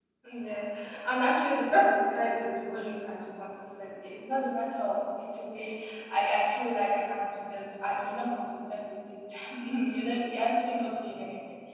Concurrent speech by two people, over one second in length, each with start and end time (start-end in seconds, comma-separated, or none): none